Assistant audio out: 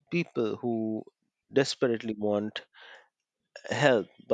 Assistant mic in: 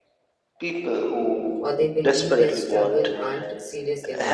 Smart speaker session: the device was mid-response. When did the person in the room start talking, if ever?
1.6 s

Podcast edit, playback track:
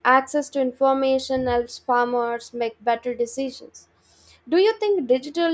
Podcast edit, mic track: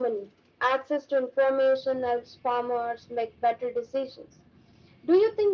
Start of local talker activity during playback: none

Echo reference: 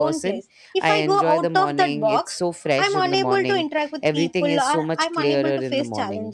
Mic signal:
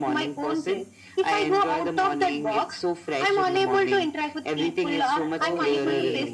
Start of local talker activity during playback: 5.4 s

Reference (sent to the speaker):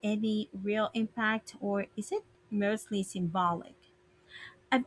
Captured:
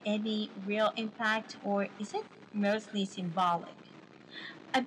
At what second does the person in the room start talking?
none

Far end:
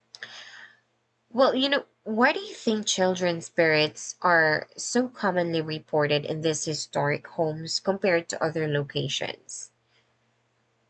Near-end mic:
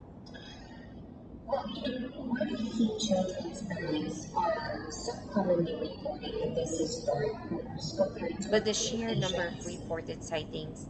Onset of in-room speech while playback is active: 8.4 s

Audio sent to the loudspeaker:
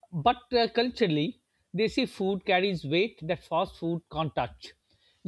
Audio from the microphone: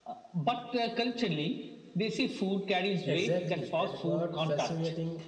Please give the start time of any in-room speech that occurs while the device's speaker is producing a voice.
3.1 s

